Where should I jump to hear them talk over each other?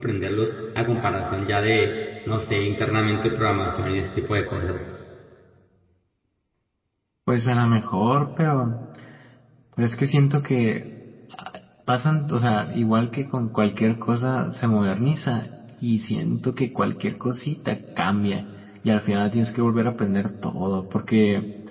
none

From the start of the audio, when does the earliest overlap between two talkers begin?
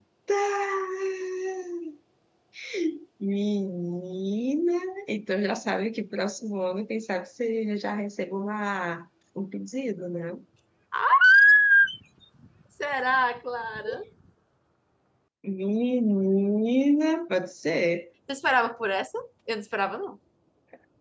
none

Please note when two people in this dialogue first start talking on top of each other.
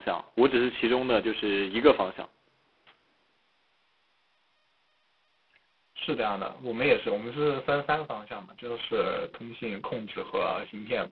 none

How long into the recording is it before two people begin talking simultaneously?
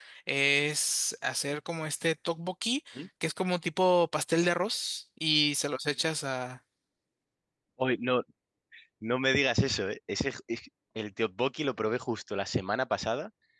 none

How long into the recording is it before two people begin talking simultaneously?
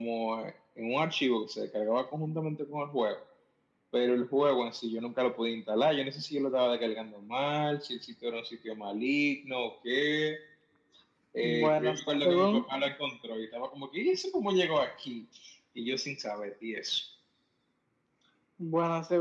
11 s

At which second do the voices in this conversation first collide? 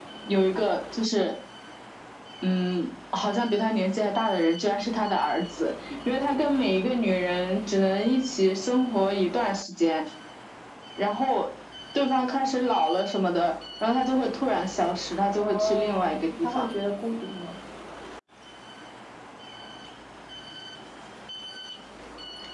15 s

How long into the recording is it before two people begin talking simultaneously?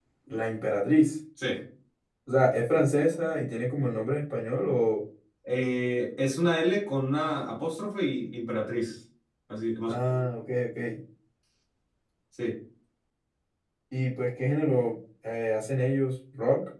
none

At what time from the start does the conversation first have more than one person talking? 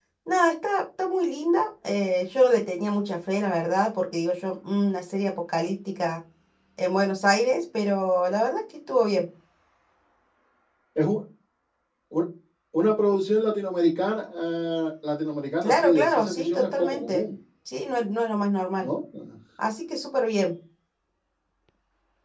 16 s

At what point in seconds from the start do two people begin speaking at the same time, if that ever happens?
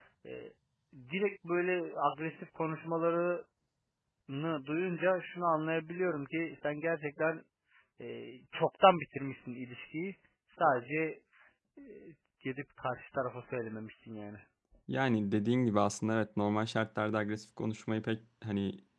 none

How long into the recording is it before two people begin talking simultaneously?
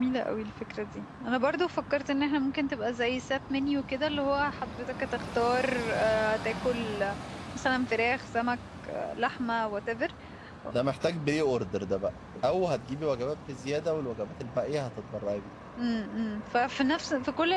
none

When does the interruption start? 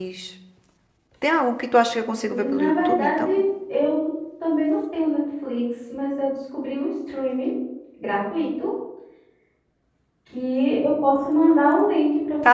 2 s

